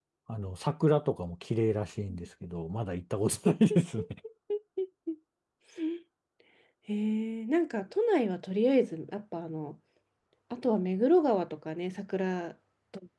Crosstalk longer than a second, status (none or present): none